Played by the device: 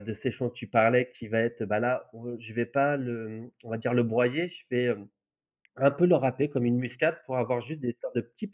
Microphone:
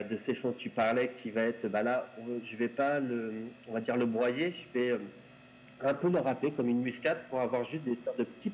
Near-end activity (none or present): none